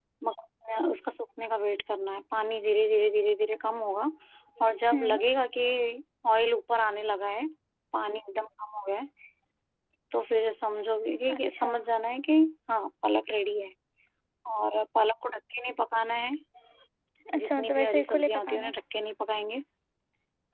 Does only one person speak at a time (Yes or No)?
No